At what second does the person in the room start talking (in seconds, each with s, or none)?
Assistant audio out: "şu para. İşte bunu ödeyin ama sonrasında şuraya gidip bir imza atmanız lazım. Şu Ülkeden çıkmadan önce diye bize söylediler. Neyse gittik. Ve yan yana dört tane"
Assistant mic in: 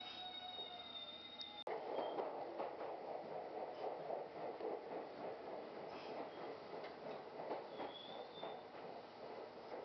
none